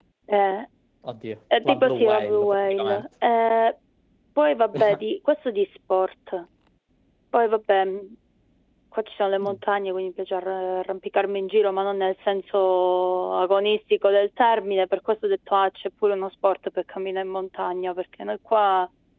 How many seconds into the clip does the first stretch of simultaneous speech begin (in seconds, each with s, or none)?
1.6 s